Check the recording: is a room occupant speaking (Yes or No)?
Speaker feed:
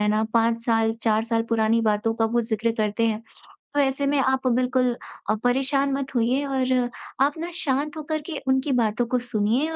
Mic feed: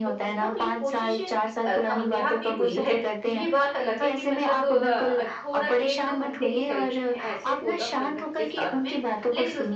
Yes